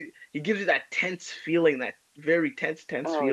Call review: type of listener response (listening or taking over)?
taking over